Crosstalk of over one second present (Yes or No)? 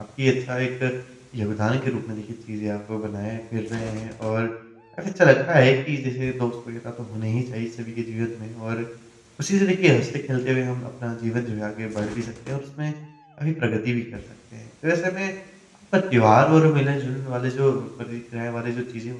No